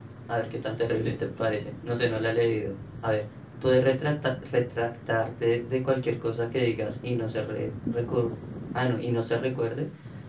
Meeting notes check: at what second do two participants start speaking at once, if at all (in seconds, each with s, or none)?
none